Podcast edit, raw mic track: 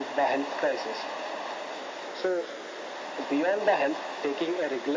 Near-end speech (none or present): none